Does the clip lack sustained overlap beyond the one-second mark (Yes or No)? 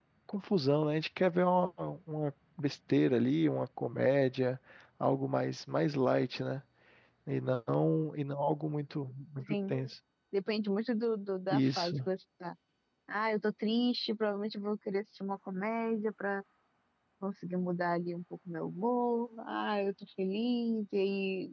Yes